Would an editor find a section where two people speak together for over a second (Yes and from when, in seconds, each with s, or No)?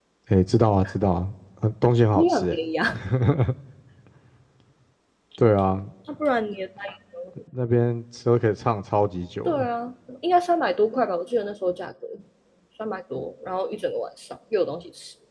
No